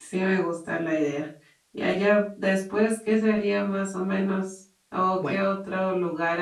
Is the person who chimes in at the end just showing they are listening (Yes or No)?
Yes